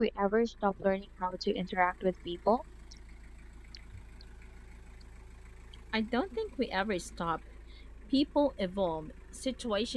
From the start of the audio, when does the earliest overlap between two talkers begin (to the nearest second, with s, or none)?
none